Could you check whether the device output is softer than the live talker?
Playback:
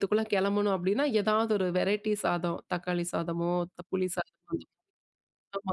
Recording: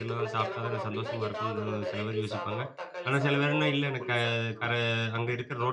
Yes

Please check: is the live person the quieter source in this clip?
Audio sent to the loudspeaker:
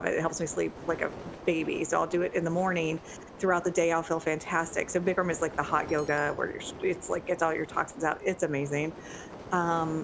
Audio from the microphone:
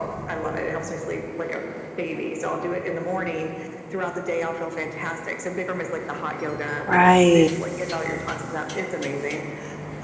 No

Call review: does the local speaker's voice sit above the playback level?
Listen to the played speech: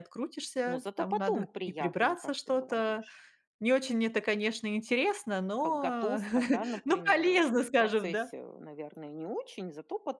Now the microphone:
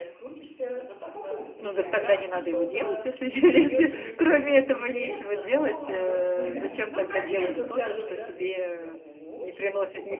Yes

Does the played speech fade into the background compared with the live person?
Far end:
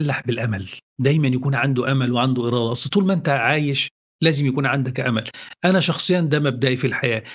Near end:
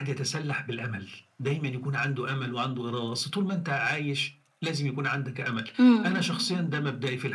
Yes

